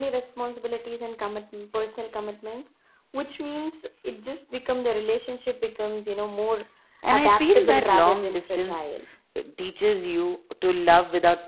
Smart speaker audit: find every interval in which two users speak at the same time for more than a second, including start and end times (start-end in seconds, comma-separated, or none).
7.1-8.9